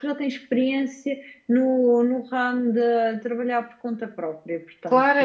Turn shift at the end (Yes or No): Yes